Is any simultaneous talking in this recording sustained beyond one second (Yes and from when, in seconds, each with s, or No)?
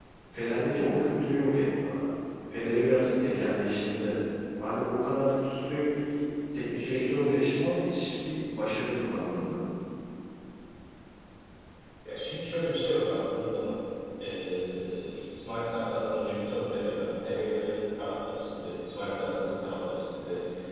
No